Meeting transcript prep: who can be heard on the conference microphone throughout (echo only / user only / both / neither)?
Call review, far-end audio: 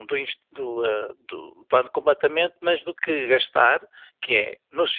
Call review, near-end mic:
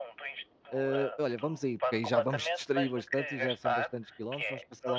both